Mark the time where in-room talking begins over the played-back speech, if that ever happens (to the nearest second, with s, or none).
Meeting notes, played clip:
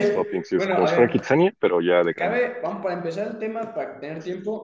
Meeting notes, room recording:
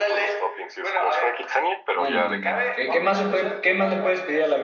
2 s